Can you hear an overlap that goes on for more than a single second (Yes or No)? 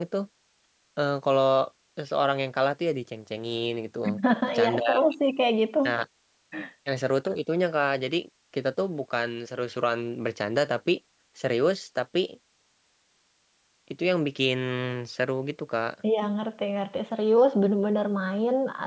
No